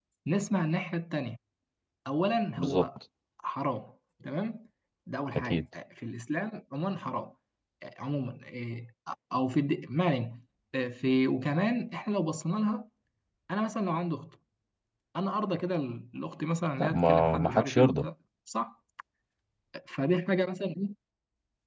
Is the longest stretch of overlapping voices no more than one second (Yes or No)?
No